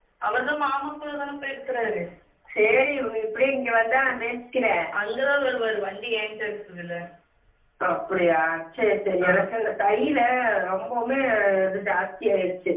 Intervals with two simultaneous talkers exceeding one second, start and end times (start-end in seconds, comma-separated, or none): none